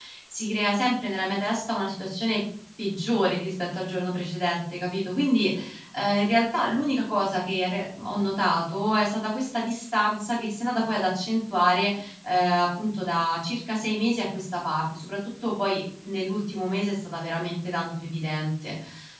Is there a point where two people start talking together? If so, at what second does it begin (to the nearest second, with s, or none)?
none